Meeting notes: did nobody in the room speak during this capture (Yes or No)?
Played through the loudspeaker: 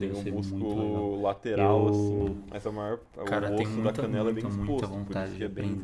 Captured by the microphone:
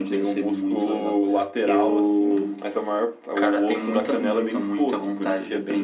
Yes